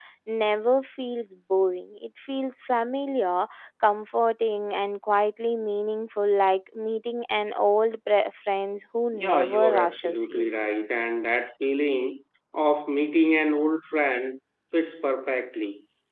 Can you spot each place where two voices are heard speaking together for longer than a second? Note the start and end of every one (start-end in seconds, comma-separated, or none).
9.1-10.5